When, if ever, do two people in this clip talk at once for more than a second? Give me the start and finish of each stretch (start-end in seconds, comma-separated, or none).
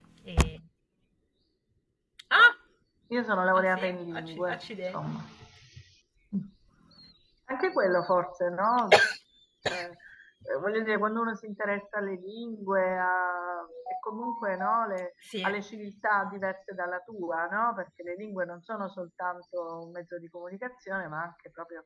3.5-5.0